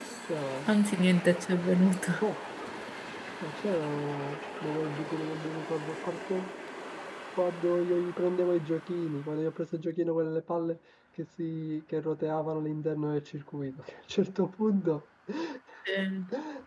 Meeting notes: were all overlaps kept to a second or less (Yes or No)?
Yes